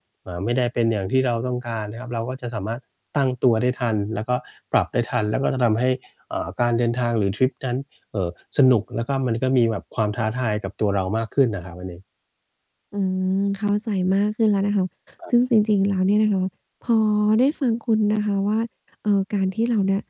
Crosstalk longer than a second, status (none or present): none